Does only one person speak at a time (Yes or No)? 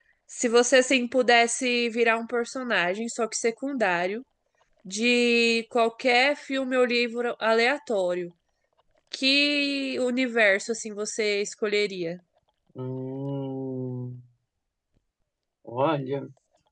Yes